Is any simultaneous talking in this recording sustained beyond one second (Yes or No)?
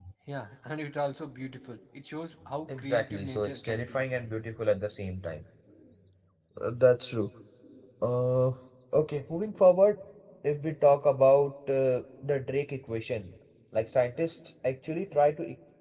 Yes